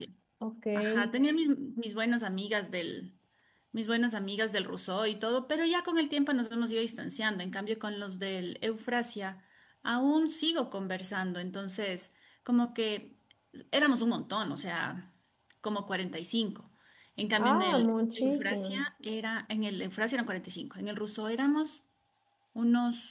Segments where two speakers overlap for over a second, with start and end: 17.4-18.8

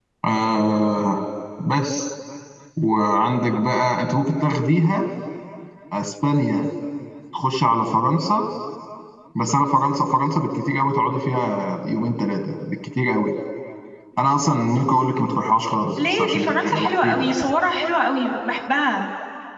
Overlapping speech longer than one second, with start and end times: 16.0-17.3

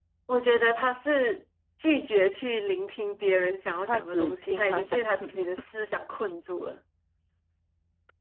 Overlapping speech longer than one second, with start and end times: 3.9-5.6

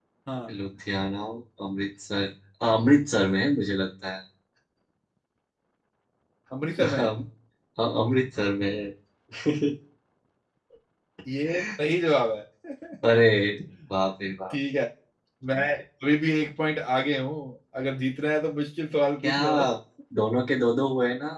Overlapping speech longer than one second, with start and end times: none

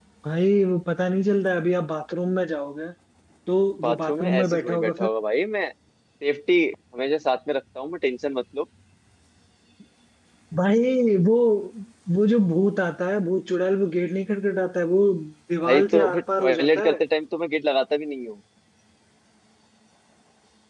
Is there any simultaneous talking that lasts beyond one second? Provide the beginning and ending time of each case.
3.8-5.1, 15.6-16.9

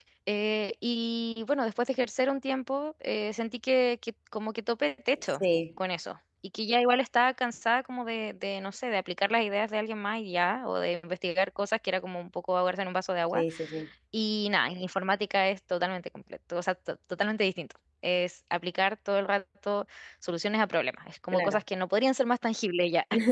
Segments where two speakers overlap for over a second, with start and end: none

